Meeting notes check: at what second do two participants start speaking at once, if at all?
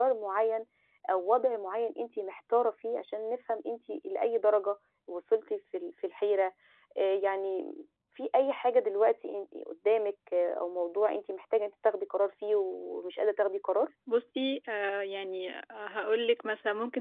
none

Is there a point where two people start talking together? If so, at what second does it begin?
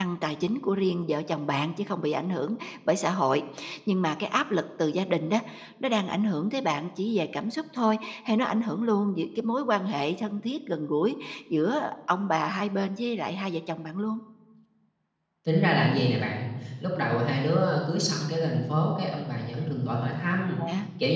none

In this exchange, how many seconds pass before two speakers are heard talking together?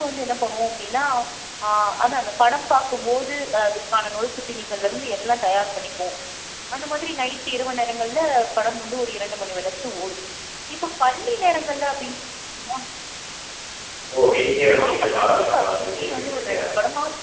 14.9 s

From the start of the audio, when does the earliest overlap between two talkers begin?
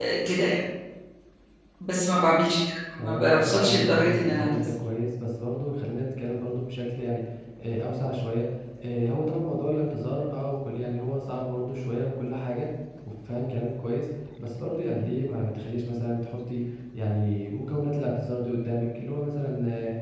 3.0 s

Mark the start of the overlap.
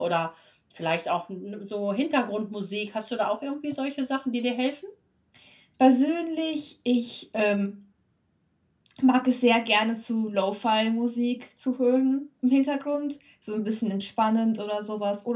none

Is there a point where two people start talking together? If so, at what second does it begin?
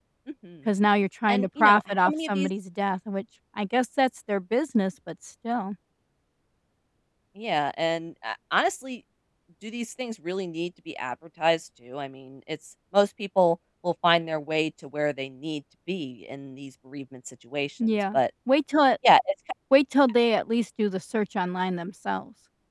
1.3 s

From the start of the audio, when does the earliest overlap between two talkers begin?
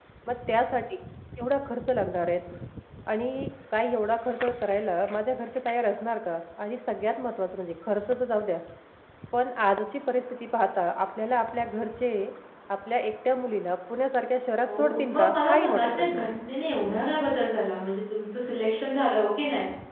14.6 s

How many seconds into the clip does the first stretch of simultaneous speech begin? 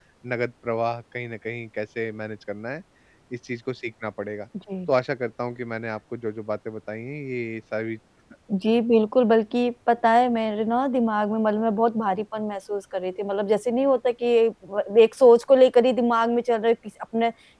none

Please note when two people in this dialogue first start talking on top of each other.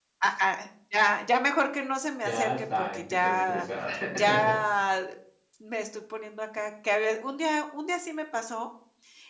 2.2 s

